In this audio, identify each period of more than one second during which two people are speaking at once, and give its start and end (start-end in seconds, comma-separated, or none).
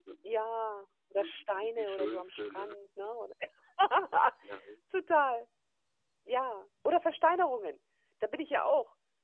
1.2-2.8